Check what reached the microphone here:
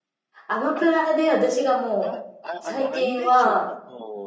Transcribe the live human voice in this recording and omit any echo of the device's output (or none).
アマプラで私がもう、最近は、